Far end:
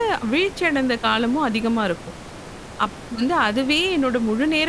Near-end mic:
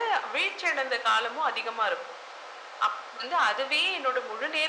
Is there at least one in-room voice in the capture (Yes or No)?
No